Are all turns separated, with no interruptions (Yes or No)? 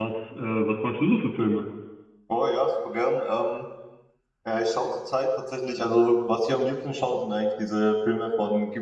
Yes